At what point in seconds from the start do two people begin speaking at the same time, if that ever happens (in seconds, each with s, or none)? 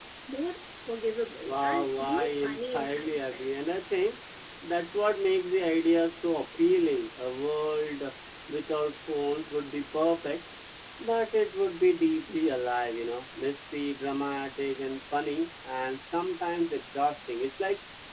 1.4 s